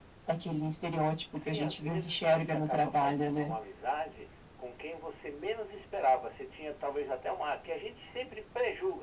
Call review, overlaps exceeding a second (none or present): present